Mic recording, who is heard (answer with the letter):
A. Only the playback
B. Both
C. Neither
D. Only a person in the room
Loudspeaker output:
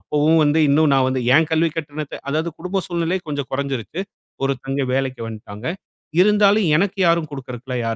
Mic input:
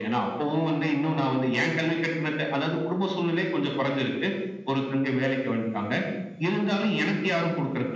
A